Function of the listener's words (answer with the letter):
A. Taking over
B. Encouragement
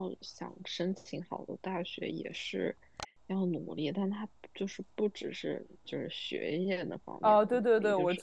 A